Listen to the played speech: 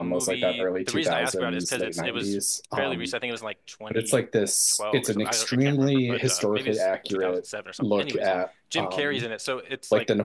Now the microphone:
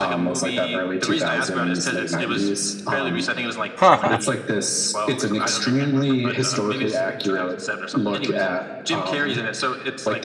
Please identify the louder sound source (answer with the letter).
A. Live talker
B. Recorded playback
A